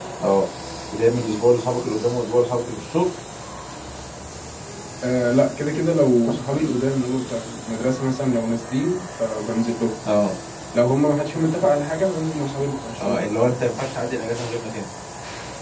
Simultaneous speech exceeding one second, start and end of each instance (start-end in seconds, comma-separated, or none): none